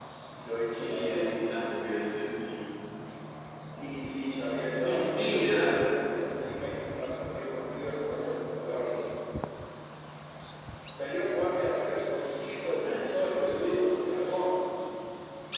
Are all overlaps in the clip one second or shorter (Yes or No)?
No